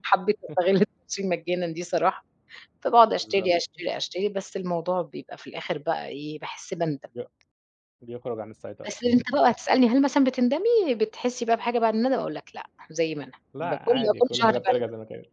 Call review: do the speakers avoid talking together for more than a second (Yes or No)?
No